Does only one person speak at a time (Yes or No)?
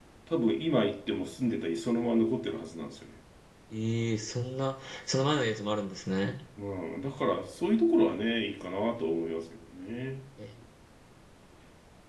Yes